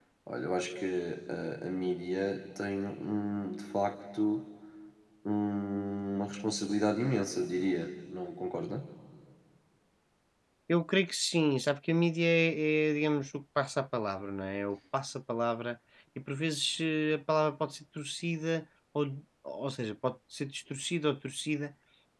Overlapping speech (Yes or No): No